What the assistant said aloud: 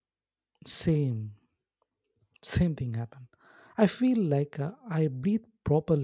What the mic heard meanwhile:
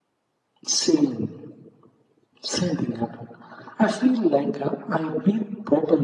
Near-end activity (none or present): none